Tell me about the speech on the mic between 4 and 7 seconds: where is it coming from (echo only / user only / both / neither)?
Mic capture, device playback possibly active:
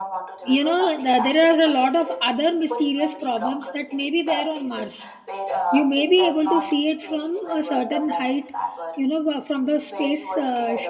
both